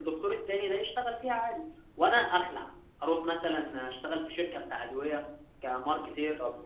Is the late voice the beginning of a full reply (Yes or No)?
Yes